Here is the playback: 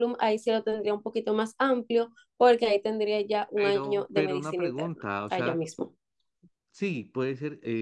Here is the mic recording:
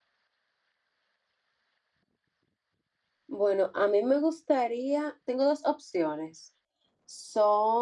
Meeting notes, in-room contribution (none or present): present